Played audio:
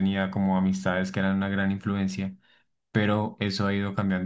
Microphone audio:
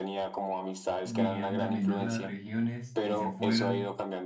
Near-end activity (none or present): present